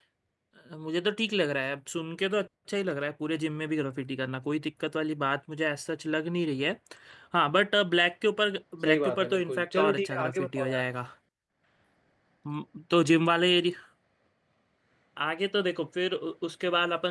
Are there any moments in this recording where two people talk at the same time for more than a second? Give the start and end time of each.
8.8-10.7

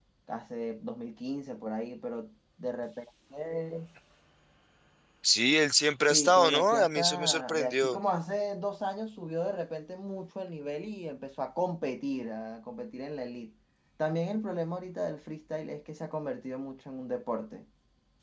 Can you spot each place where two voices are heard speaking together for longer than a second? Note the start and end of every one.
6.1-8.0

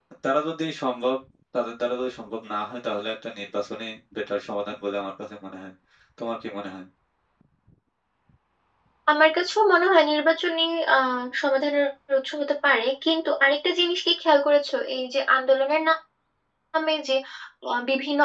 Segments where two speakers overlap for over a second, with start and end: none

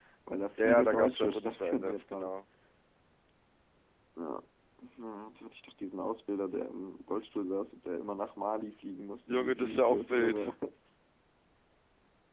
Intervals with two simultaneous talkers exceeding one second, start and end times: 0.6-2.3, 9.3-10.5

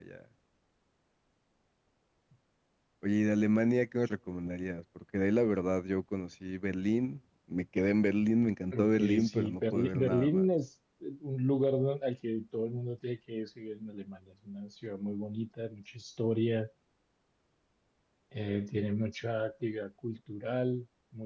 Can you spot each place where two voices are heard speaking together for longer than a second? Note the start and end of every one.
8.8-10.4

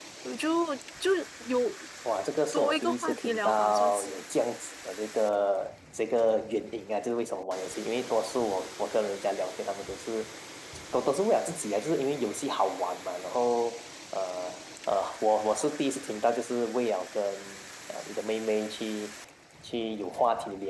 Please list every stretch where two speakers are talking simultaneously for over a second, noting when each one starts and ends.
2.5-4.2

